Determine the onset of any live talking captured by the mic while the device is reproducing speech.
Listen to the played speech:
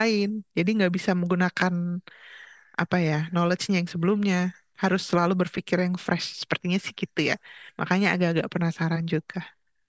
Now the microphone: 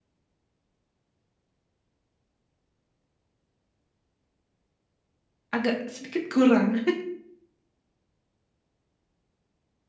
5.5 s

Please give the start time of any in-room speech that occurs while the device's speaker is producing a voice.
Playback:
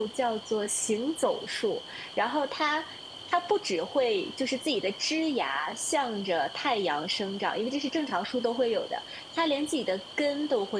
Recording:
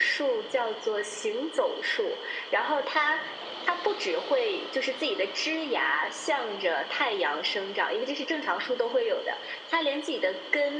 none

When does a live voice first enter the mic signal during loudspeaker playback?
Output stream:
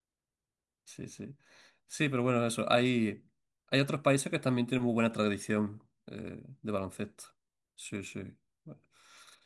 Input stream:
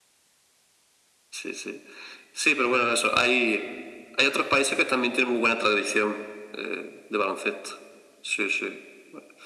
none

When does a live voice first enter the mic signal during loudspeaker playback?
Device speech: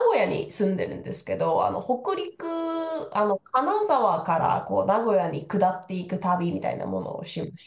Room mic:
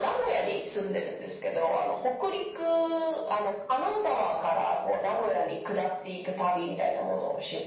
none

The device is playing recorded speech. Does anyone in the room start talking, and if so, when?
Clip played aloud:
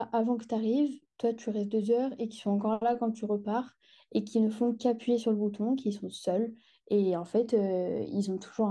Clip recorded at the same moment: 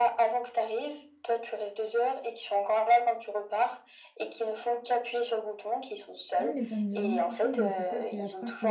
6.4 s

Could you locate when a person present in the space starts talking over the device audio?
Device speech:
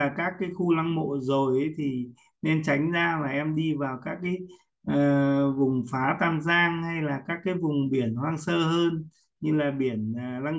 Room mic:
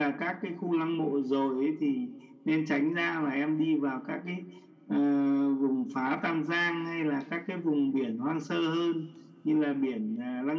none

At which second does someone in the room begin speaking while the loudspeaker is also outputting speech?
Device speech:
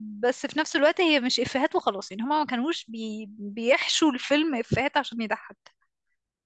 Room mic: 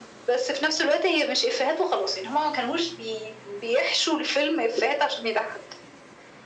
none

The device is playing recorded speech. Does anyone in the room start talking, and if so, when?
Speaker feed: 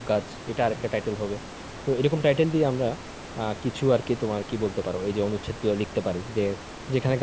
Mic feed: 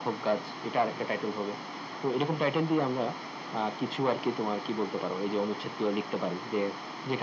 none

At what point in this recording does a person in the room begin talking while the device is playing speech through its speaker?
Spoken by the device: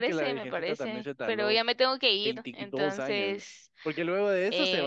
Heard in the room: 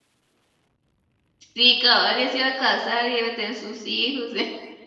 1.5 s

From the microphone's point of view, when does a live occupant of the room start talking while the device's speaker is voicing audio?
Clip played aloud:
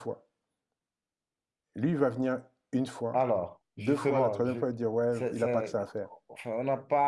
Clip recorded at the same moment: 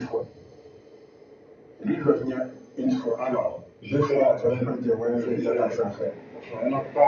none

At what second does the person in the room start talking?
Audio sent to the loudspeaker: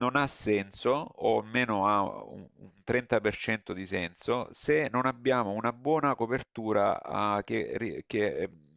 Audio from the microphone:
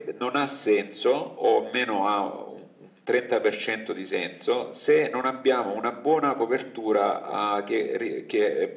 none

